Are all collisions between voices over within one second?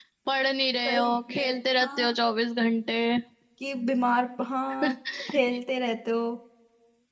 No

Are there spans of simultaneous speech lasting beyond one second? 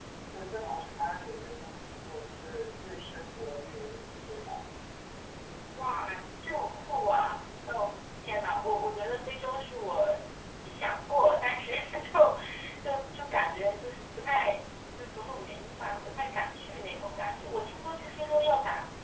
No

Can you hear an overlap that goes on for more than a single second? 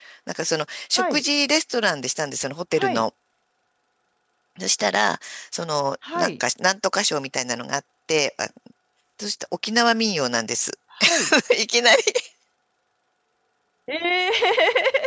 No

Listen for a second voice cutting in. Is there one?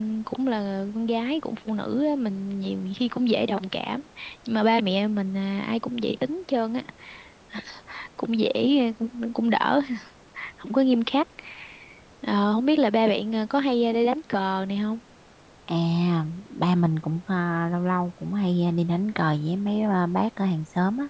No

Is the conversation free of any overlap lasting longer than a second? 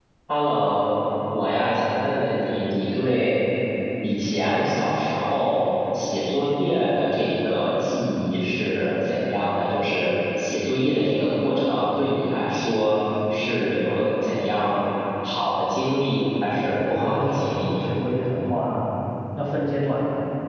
No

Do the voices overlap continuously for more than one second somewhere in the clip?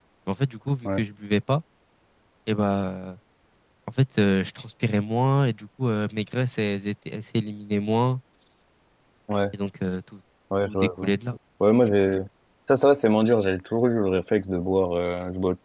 No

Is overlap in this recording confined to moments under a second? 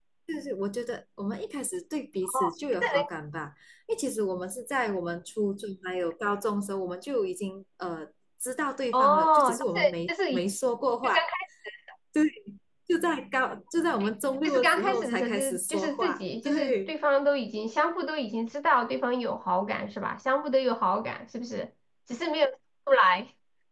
No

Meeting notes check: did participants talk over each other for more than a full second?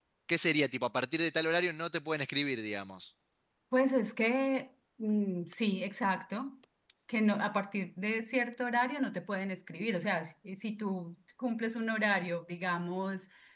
No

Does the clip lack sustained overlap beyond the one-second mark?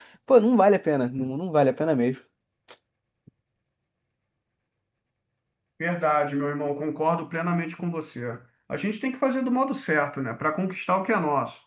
Yes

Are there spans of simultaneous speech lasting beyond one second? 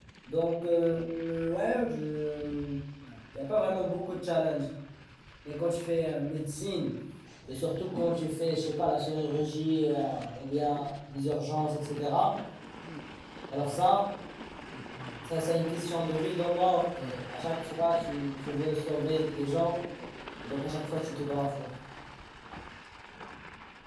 No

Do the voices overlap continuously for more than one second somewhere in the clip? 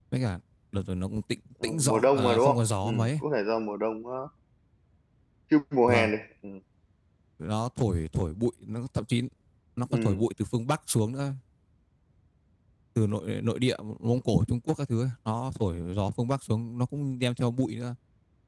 Yes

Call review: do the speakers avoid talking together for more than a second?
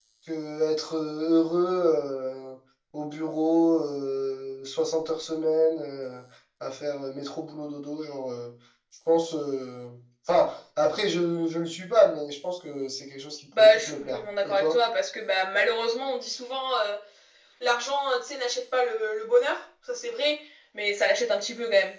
No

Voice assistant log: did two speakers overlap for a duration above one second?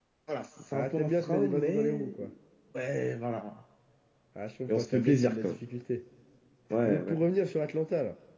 Yes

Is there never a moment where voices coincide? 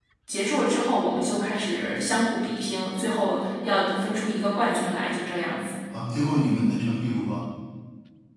Yes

